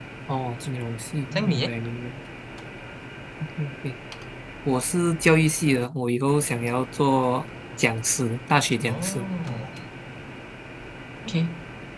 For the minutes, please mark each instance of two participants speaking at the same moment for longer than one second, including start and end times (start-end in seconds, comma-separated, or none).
none